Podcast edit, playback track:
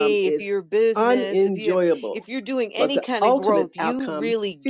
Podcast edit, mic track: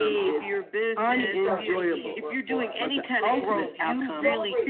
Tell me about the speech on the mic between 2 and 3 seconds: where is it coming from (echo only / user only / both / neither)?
both